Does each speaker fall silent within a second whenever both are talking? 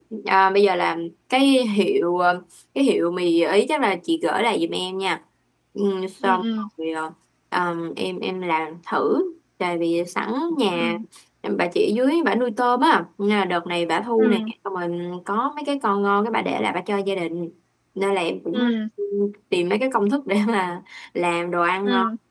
Yes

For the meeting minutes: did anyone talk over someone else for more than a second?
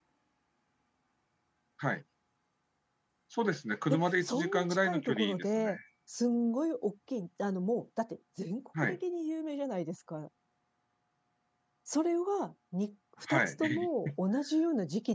Yes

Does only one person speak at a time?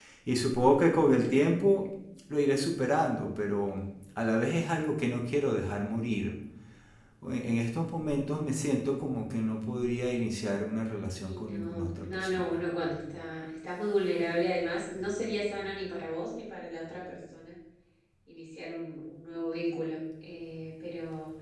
No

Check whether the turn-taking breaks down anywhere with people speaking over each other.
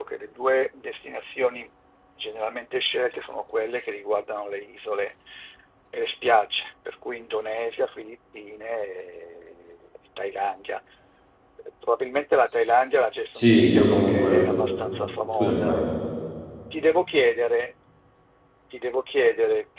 Yes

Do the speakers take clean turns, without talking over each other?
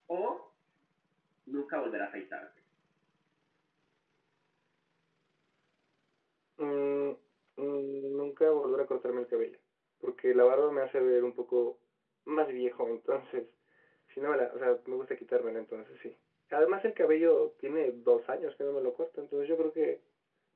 Yes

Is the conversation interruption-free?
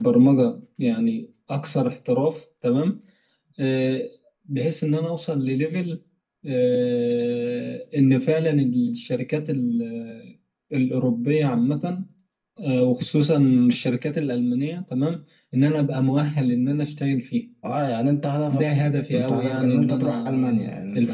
No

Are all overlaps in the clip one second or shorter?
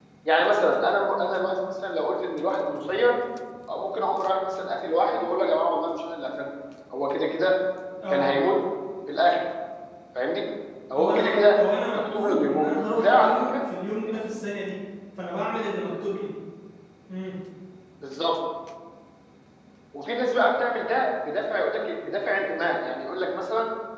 No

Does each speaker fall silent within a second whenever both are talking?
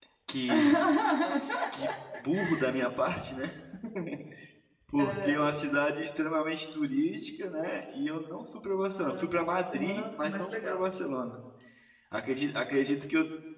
No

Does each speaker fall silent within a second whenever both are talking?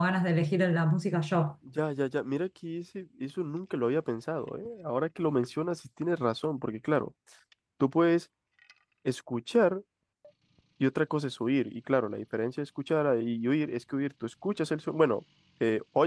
Yes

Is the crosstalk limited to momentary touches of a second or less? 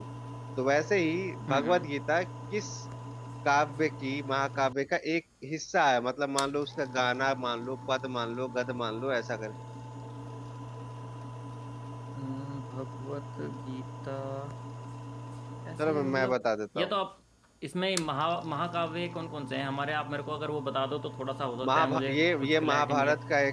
No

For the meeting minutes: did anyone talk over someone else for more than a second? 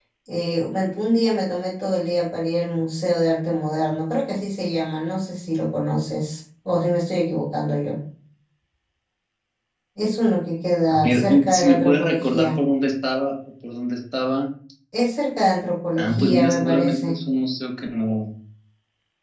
Yes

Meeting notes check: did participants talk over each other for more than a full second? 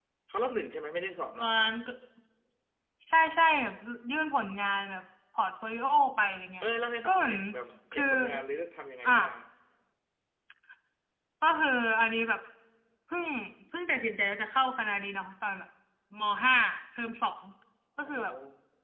No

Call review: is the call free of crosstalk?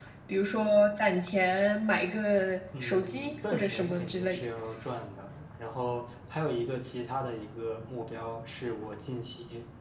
No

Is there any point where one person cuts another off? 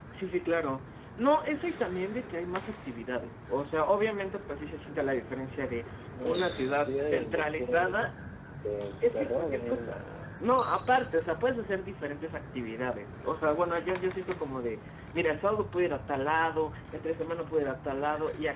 Yes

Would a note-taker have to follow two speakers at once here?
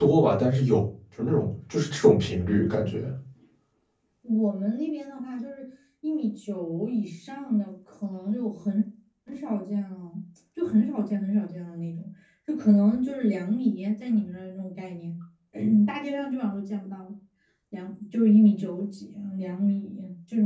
No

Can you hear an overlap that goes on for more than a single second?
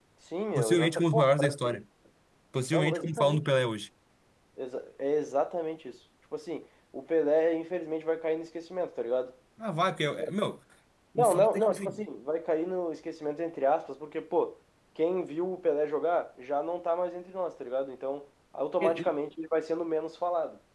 Yes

